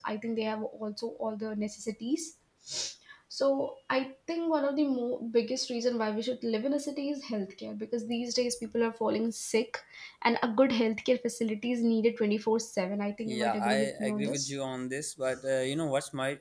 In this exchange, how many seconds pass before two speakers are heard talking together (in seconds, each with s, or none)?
13.3 s